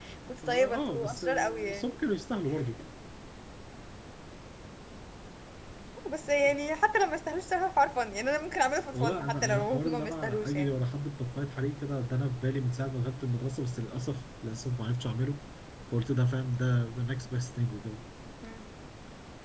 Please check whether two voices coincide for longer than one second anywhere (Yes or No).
Yes